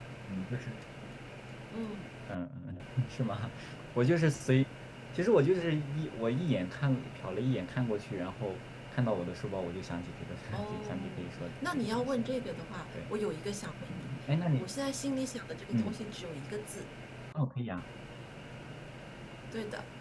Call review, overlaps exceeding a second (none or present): present